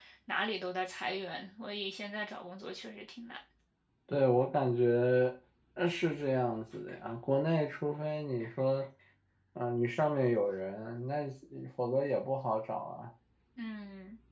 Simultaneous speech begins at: none

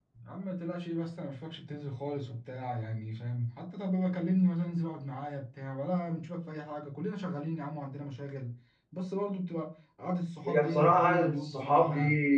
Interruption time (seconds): 10.4 s

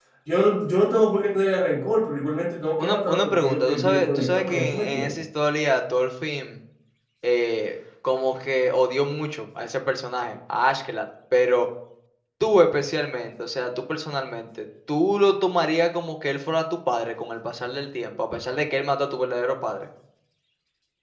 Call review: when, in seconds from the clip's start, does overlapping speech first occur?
2.8 s

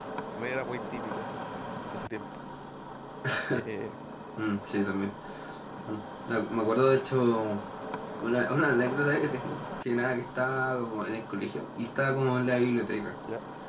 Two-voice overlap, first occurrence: none

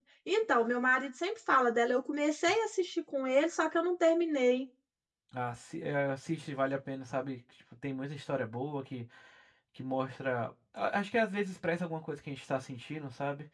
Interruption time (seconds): none

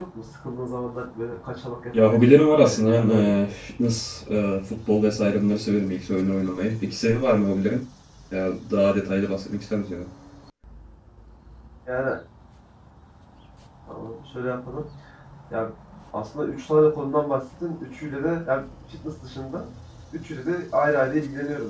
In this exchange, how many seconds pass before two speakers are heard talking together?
1.9 s

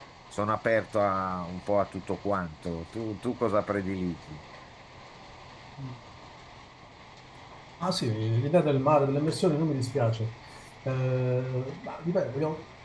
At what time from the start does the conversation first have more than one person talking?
none

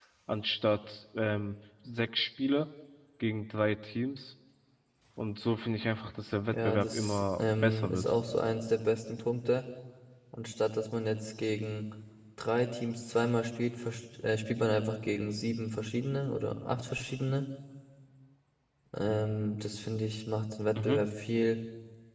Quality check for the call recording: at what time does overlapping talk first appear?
6.5 s

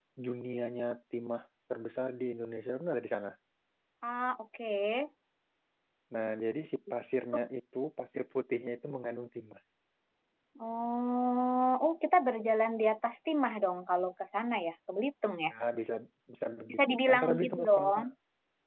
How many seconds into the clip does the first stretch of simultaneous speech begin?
16.7 s

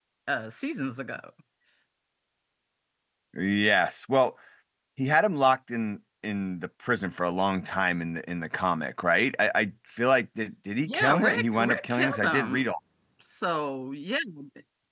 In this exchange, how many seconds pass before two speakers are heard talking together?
10.9 s

